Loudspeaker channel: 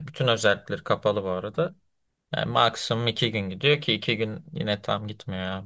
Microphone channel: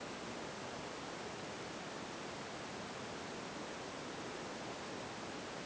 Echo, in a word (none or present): none